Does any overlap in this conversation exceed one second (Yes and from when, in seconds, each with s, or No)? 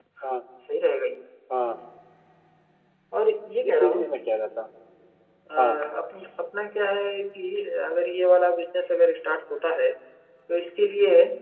No